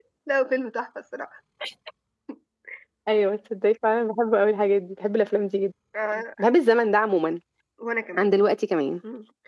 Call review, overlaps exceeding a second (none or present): none